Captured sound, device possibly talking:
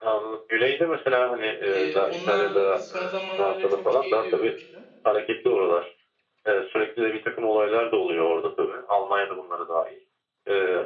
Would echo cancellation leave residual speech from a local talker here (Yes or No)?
Yes